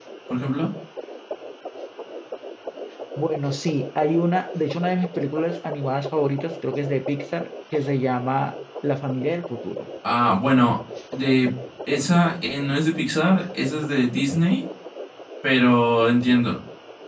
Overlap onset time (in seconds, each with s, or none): none